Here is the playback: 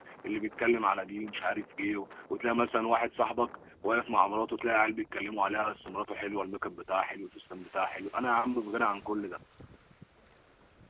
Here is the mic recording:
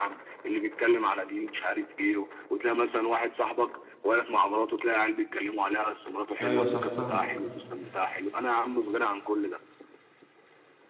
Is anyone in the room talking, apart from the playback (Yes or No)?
Yes